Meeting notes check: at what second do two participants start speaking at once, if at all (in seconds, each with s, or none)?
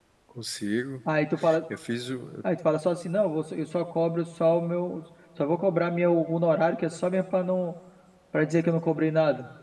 none